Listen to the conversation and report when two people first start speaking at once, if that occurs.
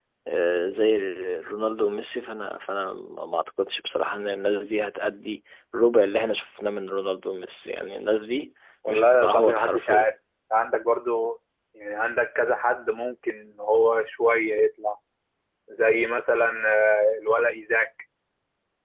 8.8 s

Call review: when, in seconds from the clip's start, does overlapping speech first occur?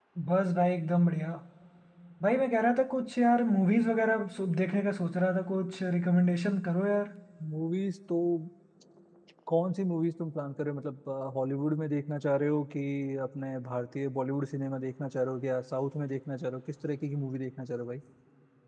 none

